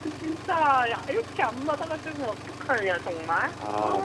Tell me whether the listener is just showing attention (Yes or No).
No